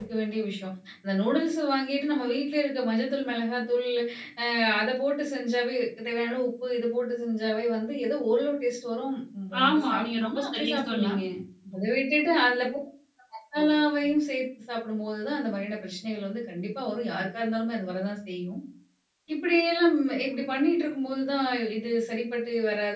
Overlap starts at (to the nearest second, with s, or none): 10 s